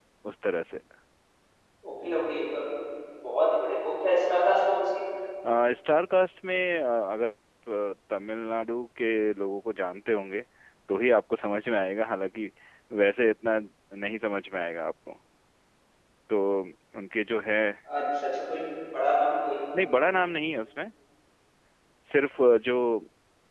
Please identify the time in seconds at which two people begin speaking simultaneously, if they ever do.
none

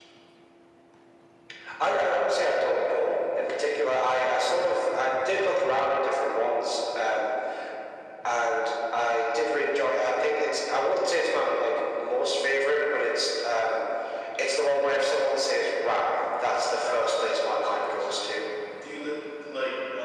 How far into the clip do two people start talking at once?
16.8 s

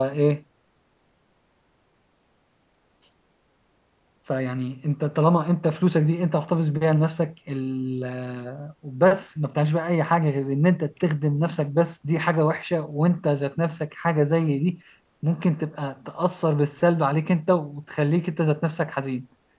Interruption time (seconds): none

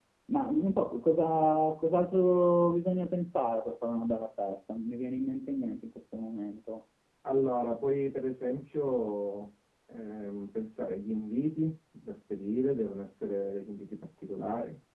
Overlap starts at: none

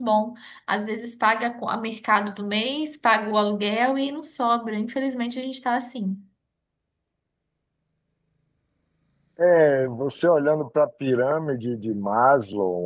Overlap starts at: none

